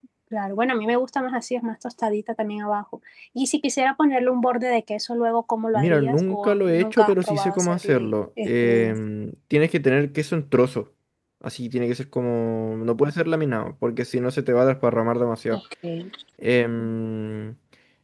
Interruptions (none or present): present